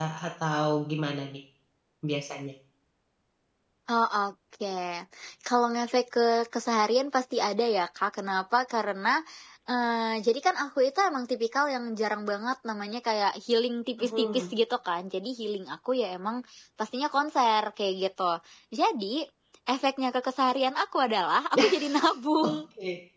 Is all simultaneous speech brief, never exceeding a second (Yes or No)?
Yes